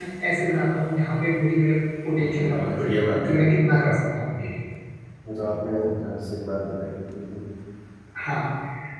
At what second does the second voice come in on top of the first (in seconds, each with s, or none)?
2.2 s